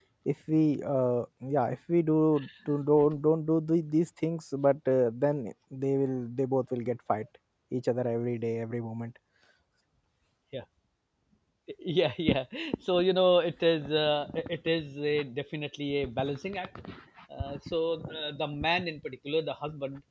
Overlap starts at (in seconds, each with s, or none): none